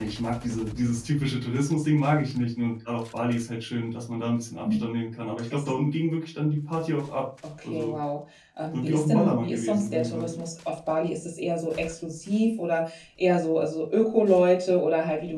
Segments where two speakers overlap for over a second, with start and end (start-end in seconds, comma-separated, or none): 8.7-10.3